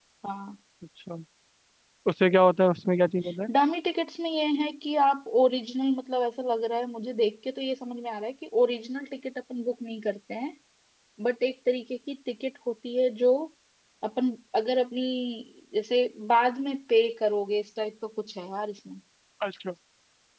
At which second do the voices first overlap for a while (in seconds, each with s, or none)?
none